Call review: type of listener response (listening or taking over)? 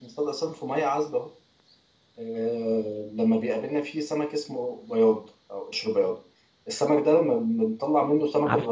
listening